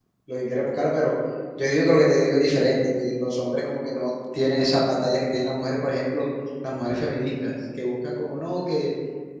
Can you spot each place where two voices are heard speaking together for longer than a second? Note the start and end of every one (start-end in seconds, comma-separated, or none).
none